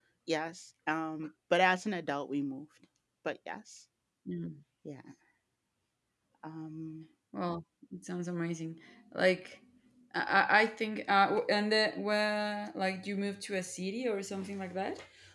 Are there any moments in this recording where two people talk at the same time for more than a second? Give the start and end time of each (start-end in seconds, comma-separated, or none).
none